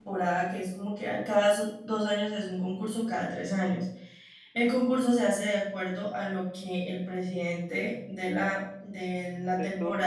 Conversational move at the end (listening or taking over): listening